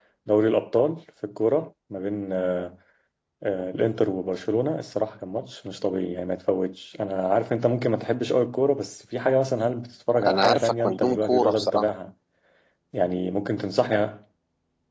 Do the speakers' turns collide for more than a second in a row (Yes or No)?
Yes